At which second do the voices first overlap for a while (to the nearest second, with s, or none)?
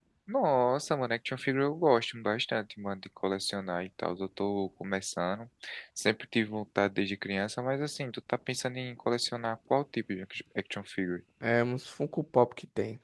none